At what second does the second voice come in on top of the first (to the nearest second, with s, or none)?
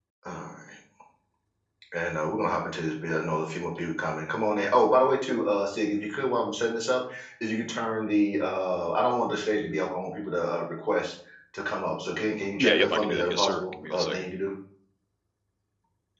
13 s